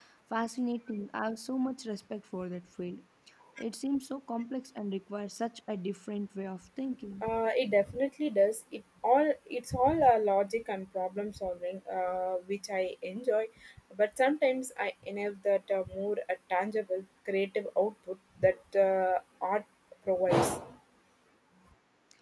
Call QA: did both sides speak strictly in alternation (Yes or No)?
Yes